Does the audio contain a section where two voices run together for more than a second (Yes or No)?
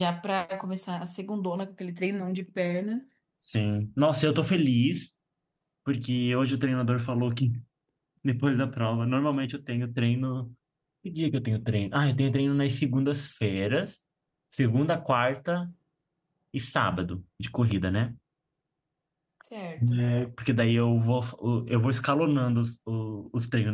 No